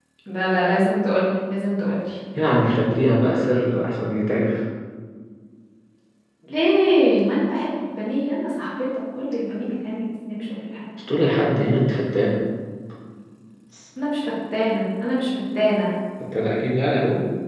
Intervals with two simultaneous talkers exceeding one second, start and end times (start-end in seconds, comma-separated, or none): none